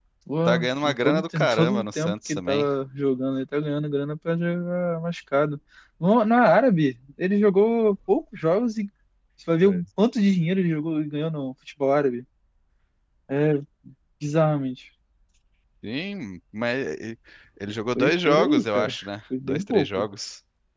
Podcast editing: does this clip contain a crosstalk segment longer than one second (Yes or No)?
Yes